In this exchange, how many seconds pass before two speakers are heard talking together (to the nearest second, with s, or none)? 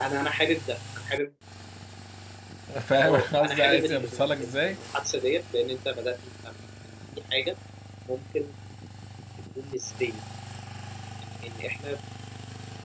3 s